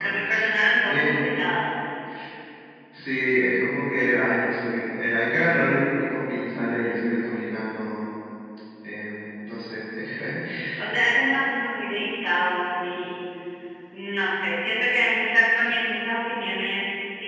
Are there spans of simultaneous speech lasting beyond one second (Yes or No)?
No